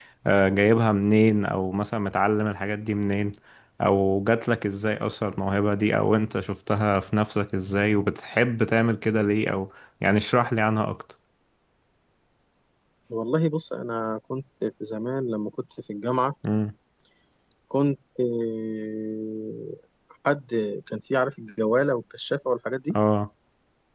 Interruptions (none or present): none